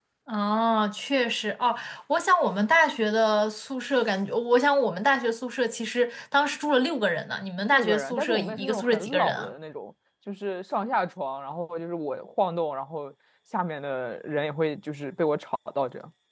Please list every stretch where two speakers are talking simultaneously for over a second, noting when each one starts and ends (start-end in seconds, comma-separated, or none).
7.7-9.5